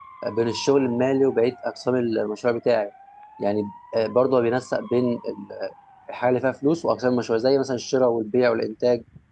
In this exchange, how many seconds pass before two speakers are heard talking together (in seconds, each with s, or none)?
none